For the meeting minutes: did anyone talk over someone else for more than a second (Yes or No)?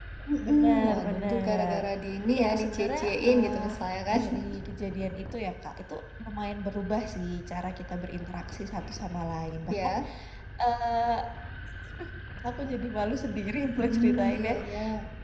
Yes